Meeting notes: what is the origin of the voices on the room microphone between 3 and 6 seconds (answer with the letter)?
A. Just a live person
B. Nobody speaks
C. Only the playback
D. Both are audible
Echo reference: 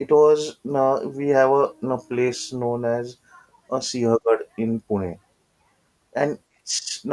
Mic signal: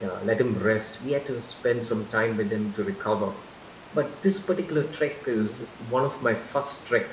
A